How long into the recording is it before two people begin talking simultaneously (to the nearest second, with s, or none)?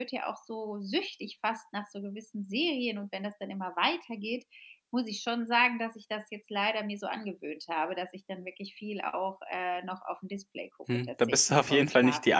11 s